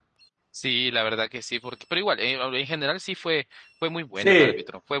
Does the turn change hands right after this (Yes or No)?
Yes